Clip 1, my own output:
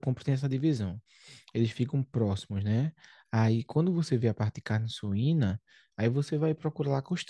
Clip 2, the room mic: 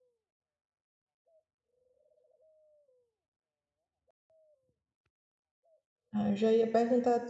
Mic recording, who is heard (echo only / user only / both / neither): user only